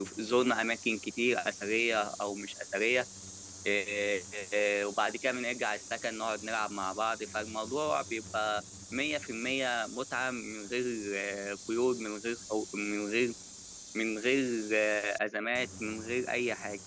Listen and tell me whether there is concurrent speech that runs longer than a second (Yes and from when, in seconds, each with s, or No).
No